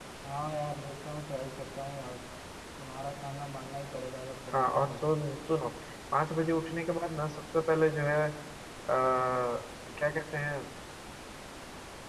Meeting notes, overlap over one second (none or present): none